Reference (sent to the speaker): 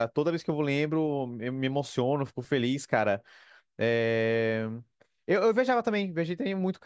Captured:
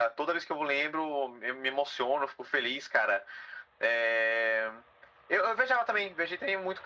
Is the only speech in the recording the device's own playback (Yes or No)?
Yes